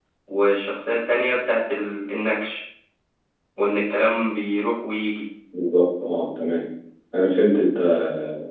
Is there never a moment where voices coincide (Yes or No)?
Yes